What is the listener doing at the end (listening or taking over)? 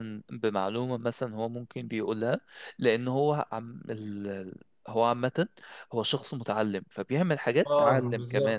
taking over